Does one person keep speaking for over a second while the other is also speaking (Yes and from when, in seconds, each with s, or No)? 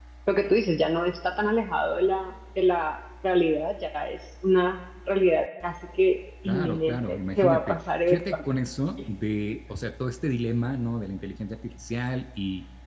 Yes, from 6.4 s